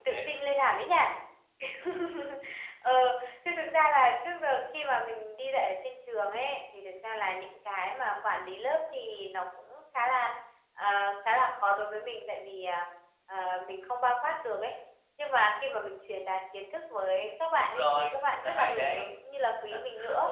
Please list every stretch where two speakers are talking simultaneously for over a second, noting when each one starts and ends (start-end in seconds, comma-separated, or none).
17.6-19.1